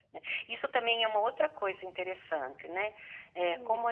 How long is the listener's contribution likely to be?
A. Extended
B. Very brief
B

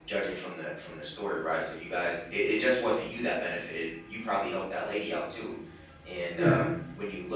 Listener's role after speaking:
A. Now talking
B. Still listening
B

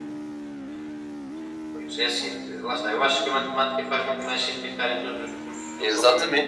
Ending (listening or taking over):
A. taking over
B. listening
A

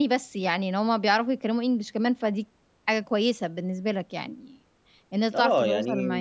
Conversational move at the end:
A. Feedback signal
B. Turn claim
B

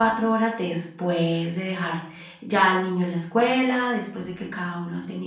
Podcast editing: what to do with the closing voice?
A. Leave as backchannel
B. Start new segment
A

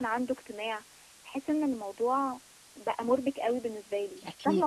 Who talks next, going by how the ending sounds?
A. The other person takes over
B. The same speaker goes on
A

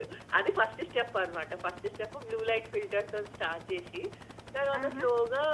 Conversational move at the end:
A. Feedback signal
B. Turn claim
A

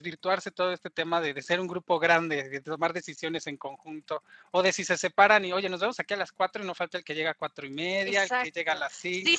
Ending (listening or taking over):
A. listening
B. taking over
B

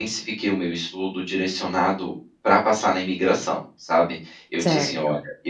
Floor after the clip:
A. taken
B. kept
B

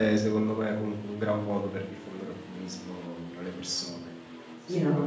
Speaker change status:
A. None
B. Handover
B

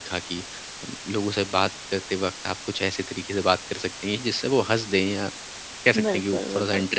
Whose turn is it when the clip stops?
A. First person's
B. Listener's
B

